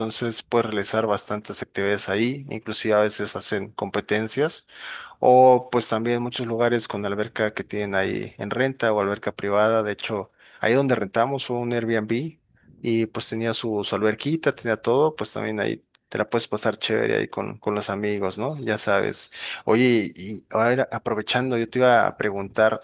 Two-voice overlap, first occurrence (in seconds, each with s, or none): none